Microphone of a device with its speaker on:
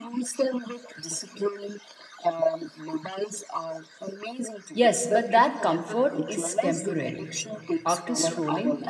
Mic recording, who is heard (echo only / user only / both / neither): both